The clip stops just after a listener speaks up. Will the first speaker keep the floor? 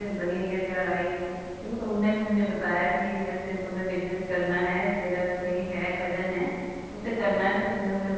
Yes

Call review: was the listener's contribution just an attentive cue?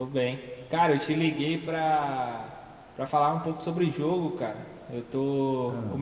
Yes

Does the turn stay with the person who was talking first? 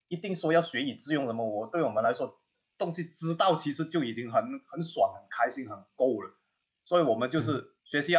Yes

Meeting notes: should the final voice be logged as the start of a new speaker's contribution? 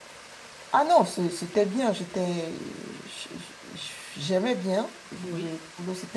No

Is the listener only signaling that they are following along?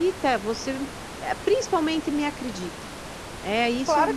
No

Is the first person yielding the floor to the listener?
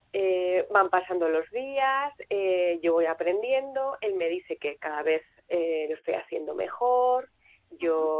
No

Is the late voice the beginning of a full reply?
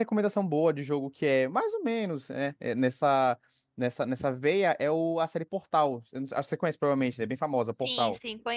Yes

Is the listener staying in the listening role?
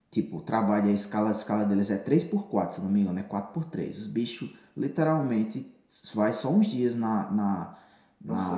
Yes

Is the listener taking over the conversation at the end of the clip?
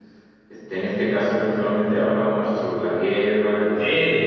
Yes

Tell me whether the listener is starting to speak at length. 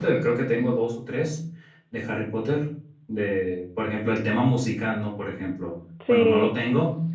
No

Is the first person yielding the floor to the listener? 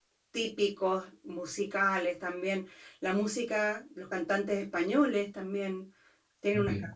No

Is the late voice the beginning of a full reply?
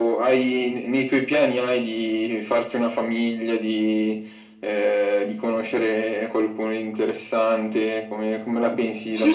Yes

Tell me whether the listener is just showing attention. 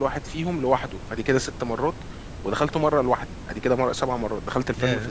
Yes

